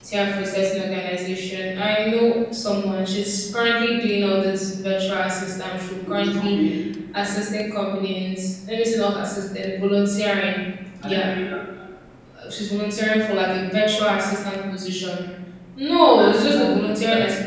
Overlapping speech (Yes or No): Yes